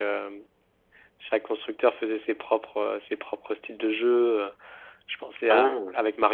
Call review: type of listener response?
listening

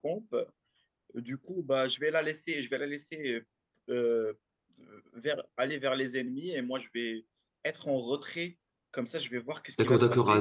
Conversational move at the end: taking over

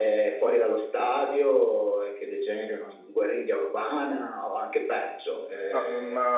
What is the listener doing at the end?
taking over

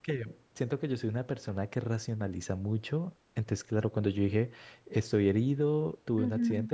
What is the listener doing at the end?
listening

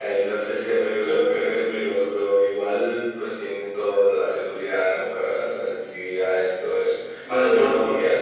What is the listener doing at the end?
listening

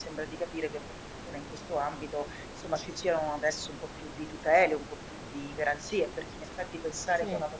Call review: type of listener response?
listening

